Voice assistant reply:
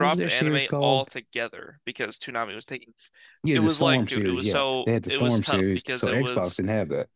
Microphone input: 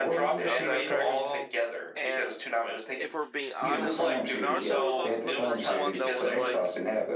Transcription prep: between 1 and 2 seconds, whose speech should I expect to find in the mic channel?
both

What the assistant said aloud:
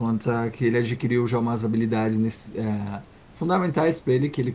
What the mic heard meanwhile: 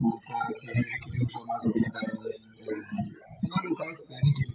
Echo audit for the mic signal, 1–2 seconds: echo only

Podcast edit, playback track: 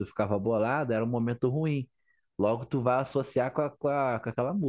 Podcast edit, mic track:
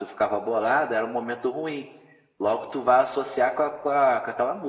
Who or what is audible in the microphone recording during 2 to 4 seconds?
echo only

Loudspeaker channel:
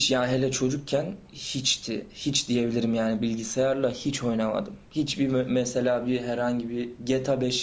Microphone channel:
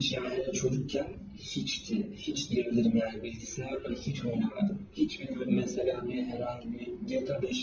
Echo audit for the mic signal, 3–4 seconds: echo only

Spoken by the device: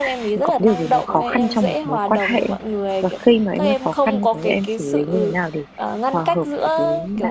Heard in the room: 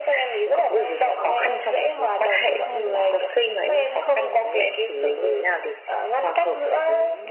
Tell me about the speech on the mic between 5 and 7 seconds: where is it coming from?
echo only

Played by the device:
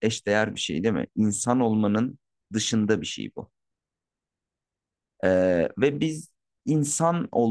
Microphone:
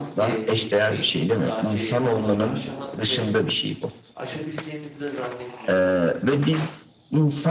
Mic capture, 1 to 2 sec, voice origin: both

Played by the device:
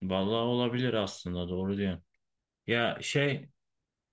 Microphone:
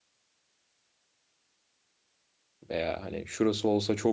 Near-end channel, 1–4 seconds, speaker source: user only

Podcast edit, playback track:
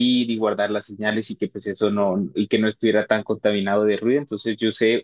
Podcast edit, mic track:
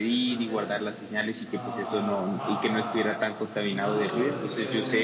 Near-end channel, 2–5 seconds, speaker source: both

